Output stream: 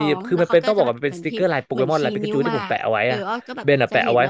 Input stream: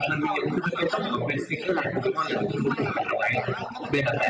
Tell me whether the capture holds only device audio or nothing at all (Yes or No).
Yes